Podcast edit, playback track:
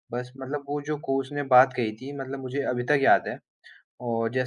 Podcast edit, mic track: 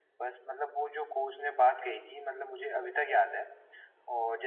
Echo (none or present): present